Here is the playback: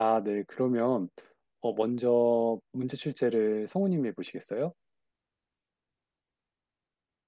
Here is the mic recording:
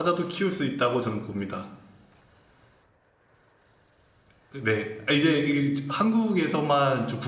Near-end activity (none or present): present